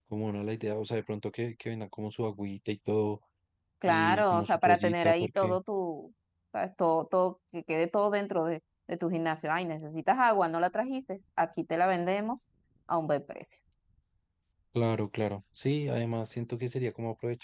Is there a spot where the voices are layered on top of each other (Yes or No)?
Yes